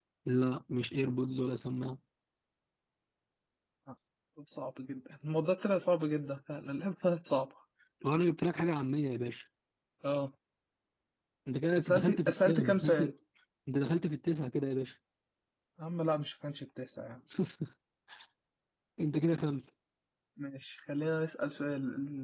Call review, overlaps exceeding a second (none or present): present